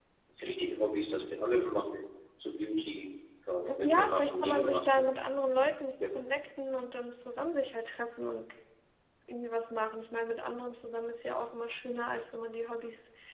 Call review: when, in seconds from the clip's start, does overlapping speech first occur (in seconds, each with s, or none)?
3.6 s